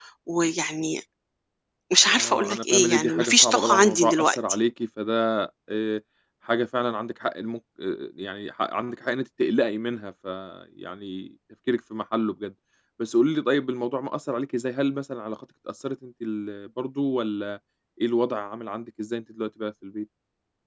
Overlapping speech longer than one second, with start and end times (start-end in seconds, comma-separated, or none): 2.1-4.4